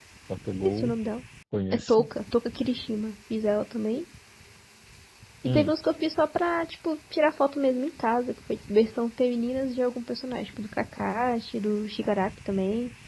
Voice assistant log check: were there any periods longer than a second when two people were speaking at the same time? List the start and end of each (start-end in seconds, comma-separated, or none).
none